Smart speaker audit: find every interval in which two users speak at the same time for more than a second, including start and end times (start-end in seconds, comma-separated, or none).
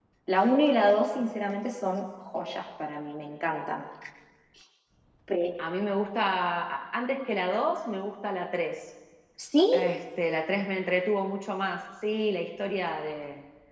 none